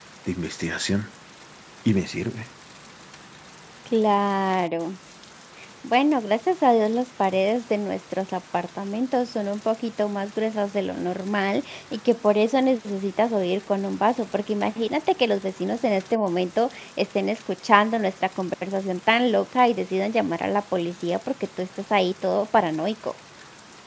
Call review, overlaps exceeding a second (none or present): none